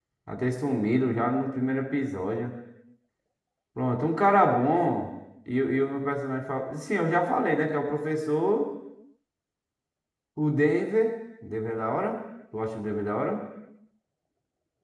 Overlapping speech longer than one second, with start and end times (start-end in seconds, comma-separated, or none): none